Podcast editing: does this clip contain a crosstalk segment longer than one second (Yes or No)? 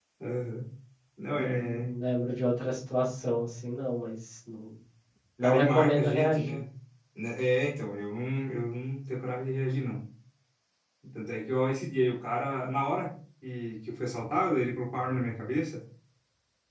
Yes